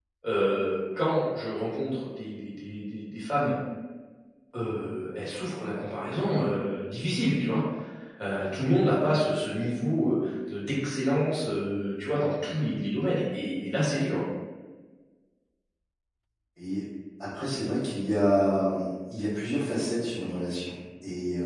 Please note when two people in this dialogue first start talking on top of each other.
none

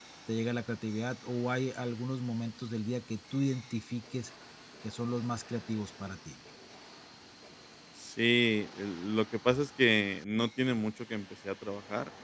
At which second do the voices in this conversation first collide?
none

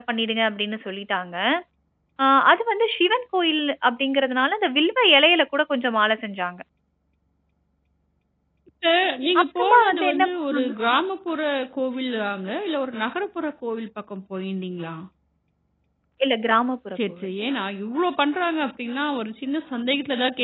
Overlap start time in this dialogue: 9.4 s

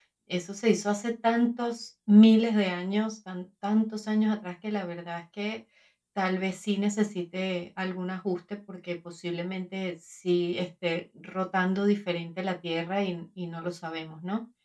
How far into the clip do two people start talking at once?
none

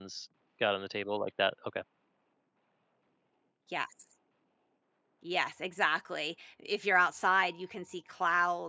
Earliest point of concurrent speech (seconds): none

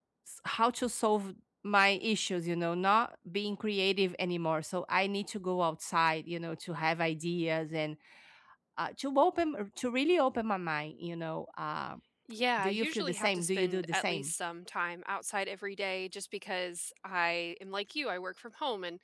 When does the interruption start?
12.6 s

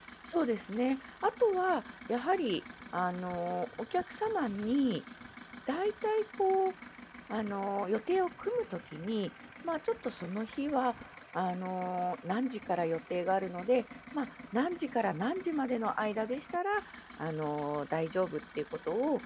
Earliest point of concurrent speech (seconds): none

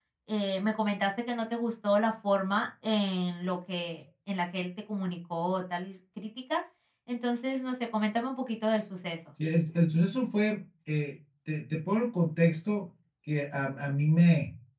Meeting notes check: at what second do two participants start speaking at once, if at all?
none

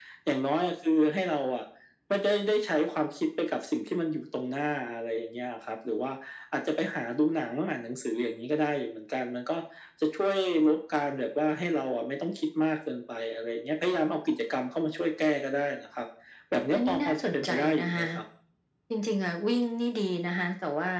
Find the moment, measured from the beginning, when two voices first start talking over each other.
16.7 s

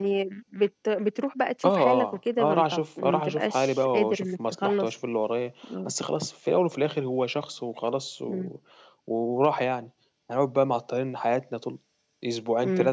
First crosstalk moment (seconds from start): 1.6 s

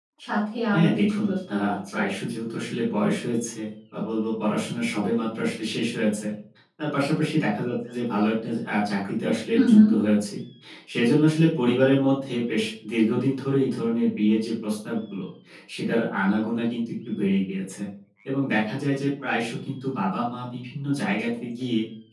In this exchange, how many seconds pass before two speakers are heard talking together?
0.7 s

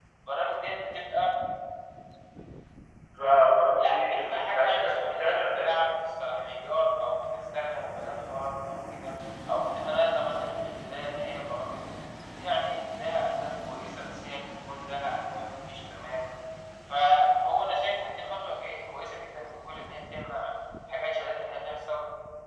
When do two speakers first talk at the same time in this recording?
3.8 s

